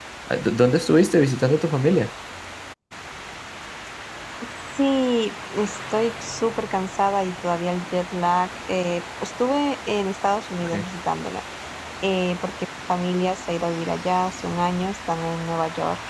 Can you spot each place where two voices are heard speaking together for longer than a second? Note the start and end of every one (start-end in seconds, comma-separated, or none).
none